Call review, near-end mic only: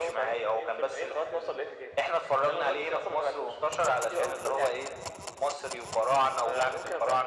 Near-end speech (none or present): none